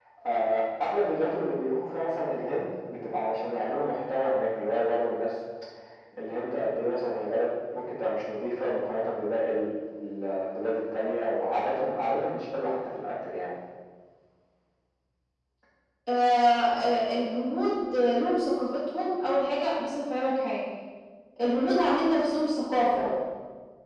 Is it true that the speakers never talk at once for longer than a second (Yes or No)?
Yes